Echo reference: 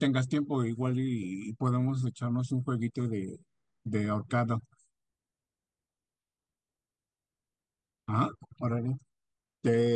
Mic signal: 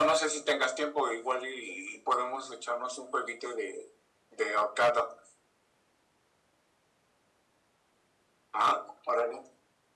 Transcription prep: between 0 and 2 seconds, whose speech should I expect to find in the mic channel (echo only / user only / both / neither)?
echo only